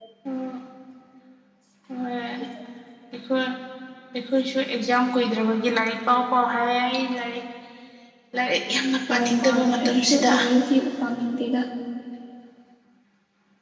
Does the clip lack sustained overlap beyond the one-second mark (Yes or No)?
No